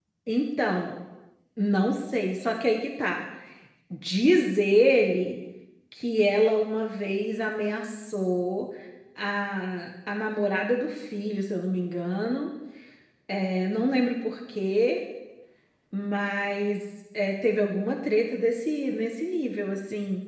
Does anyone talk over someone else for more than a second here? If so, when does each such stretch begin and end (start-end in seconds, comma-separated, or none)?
none